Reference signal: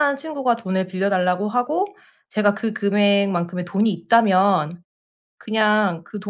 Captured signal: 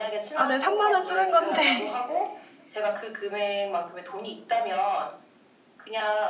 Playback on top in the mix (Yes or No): No